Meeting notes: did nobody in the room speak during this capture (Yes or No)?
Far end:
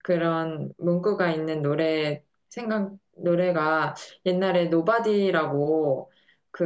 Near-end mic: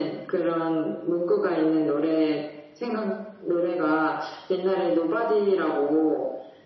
Yes